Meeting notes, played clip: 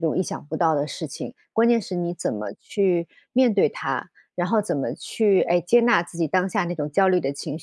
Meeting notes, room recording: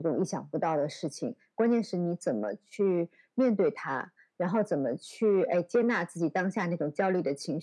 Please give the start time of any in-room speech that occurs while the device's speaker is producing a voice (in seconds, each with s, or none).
none